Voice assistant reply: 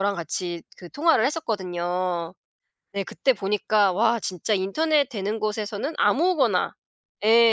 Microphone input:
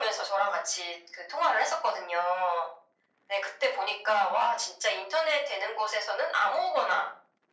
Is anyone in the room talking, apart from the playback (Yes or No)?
No